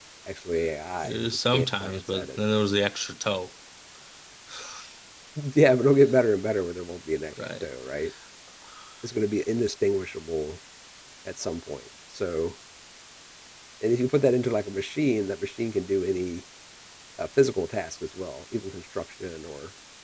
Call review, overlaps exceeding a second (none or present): present